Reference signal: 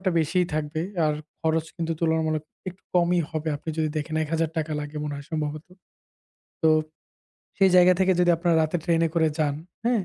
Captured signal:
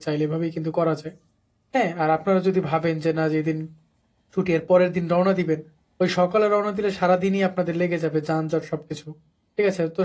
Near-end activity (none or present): present